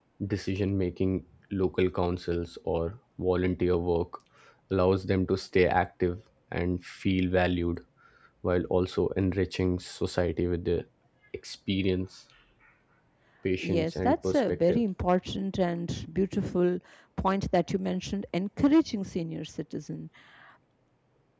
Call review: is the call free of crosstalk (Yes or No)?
No